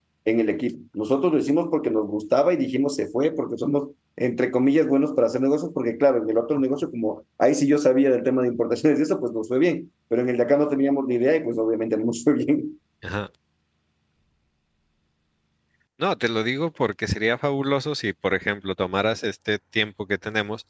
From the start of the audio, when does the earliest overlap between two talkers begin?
none

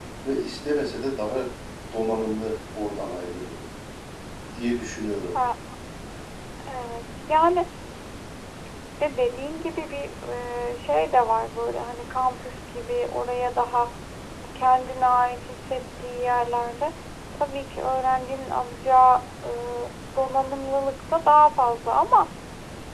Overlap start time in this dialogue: none

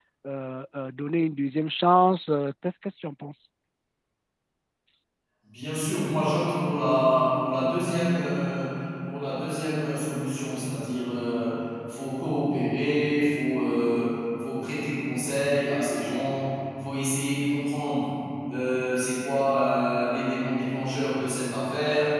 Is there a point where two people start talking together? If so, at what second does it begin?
none

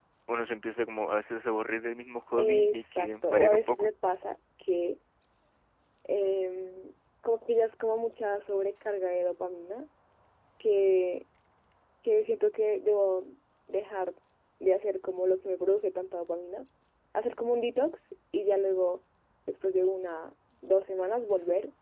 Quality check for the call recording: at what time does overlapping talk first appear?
2.3 s

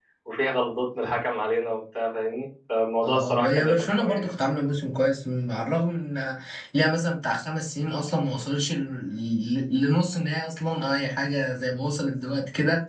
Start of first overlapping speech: 3.0 s

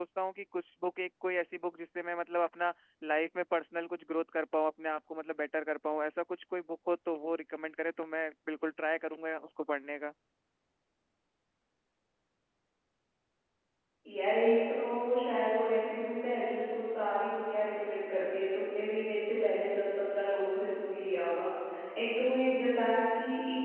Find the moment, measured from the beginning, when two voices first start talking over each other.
none

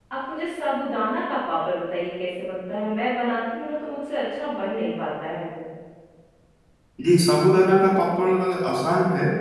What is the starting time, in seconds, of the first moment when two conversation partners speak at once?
none

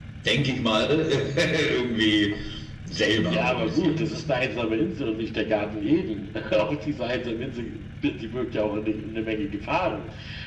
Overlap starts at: 3.3 s

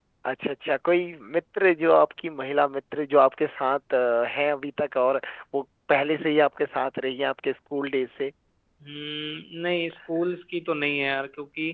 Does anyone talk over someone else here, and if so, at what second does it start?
none

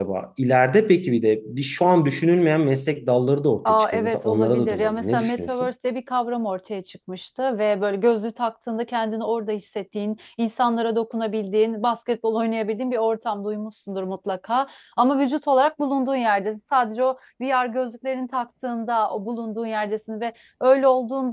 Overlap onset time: 3.6 s

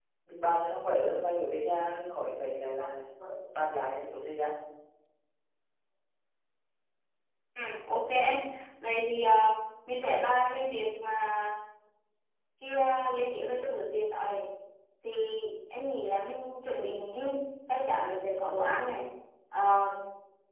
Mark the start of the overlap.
none

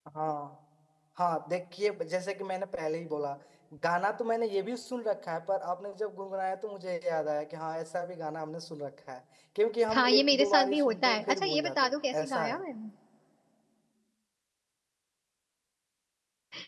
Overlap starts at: 9.9 s

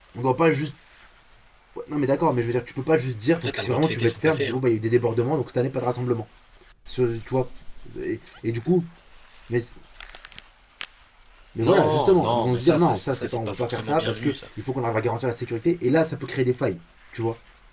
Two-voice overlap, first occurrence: 3.3 s

